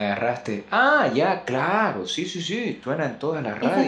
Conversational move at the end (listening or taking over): taking over